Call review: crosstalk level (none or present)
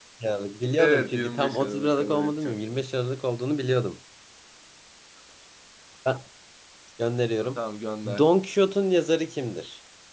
present